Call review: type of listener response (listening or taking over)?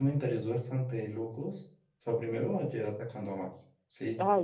taking over